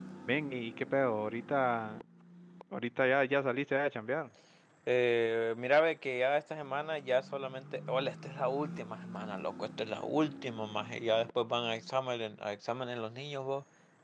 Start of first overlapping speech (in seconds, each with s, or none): none